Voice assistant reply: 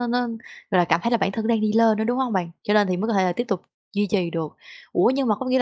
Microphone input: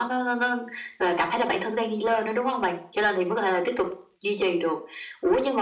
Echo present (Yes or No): Yes